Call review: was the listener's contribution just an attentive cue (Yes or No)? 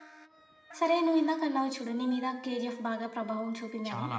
Yes